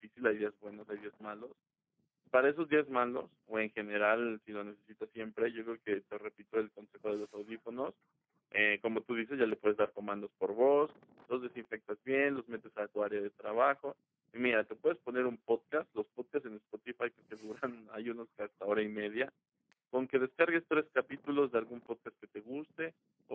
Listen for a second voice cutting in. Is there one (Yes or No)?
No